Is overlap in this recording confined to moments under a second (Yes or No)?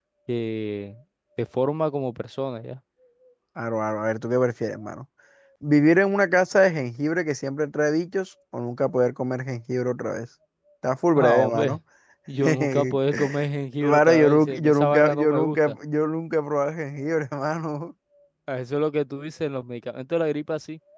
No